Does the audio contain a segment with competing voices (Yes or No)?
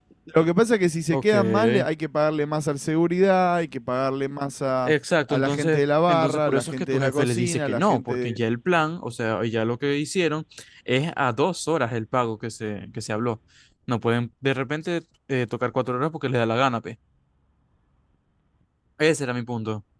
Yes